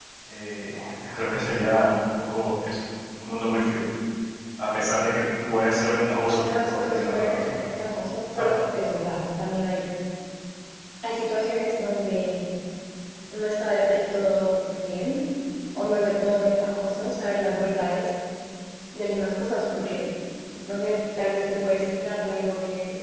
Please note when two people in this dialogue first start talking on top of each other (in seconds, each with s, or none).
6.3 s